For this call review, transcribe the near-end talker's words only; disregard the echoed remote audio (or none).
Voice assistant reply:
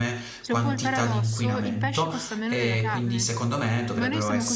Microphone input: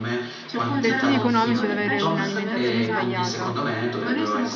per fini economici ad avere un'alimentazione sbagliata,